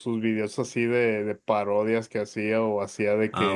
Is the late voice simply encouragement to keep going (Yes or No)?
Yes